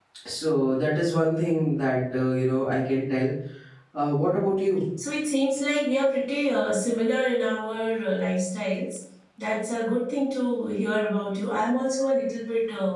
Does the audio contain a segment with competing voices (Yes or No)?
No